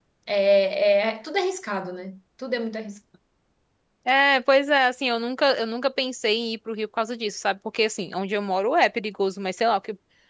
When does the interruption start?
none

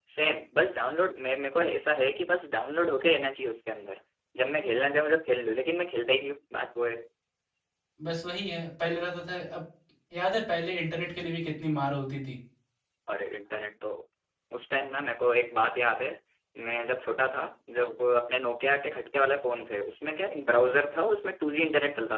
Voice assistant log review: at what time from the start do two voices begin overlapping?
none

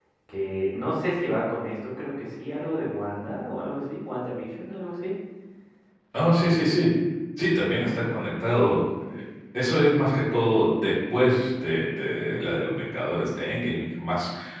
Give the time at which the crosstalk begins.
none

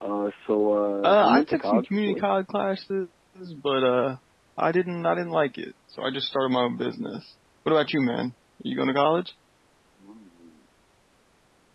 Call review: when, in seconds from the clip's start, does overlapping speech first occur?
1.0 s

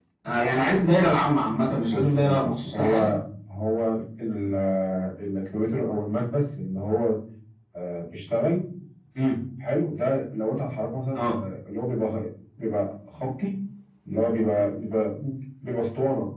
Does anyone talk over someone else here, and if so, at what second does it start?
1.9 s

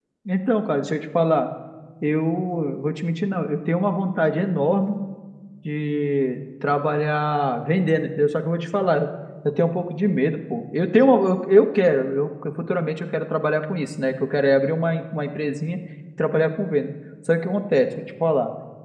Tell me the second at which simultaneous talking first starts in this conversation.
none

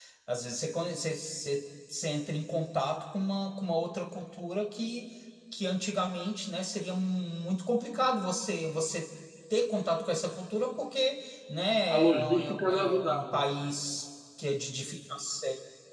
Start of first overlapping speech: 11.9 s

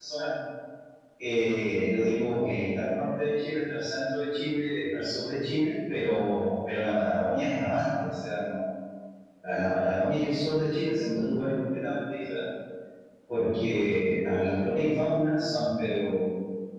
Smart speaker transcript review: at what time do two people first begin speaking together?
none

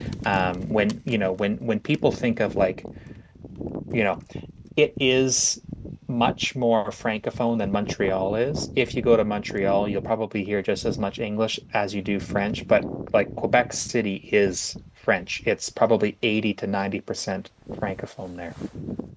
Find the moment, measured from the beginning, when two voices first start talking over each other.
none

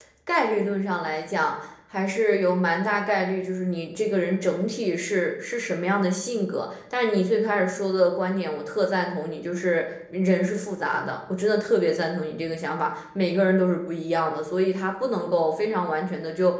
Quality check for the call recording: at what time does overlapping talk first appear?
none

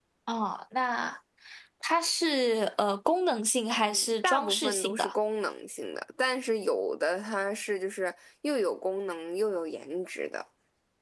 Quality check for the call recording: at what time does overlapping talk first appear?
3.8 s

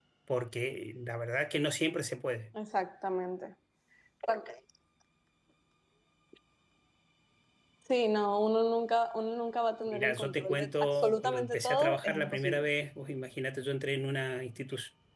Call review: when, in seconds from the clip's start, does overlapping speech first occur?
9.9 s

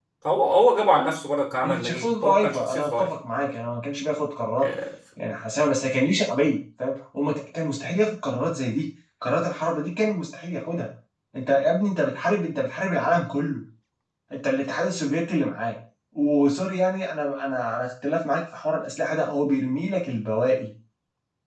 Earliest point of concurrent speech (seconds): 1.6 s

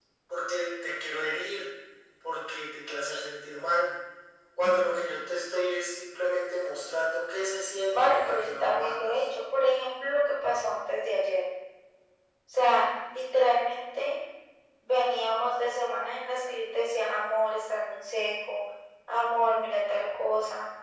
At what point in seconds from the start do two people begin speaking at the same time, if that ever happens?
7.9 s

